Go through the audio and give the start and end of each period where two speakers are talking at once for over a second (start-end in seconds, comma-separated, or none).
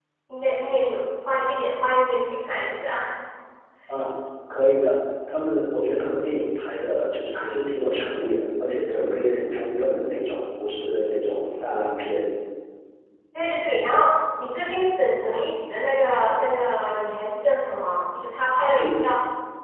none